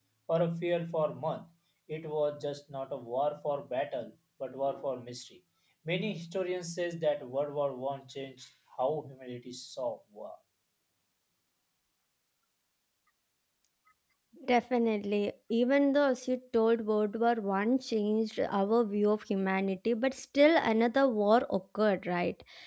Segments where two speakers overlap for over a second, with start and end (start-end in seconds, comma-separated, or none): none